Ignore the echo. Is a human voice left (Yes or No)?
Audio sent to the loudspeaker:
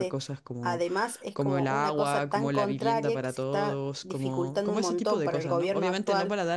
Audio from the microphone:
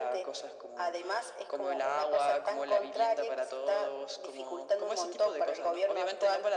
No